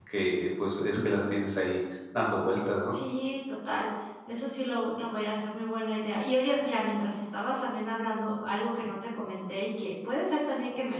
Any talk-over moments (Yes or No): No